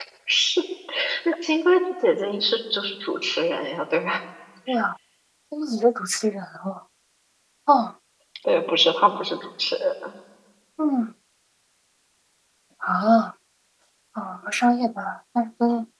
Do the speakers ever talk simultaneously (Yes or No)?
No